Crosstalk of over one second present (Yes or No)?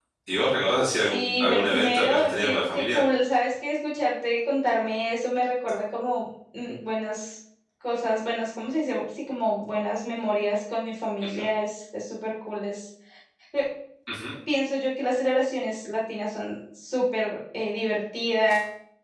Yes